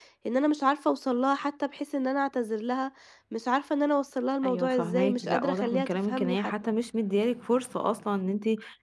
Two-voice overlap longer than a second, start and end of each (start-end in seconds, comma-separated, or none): 4.4-6.5